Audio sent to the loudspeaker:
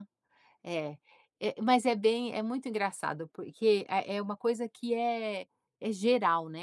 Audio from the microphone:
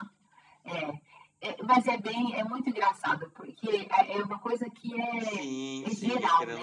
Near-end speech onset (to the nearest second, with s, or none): 5 s